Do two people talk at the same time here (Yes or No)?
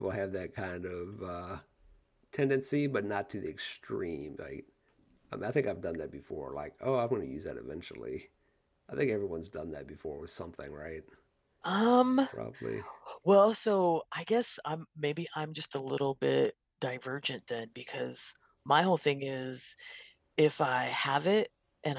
No